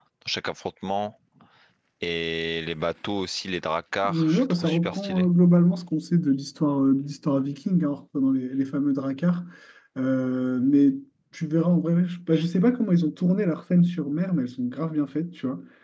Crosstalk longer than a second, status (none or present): present